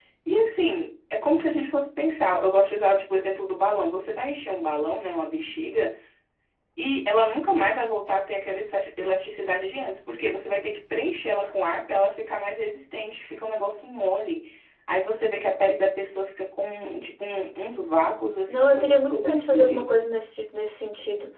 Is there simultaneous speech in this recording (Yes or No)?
Yes